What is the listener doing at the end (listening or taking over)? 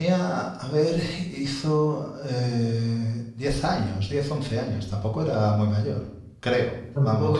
taking over